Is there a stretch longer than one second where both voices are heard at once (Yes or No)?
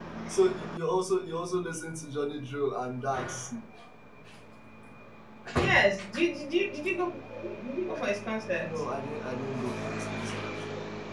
No